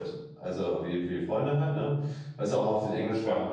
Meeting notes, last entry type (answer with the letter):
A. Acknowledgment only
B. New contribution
A